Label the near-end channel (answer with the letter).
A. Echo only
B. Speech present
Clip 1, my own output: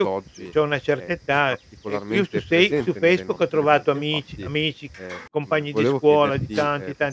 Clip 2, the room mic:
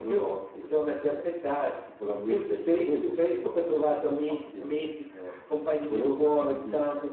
A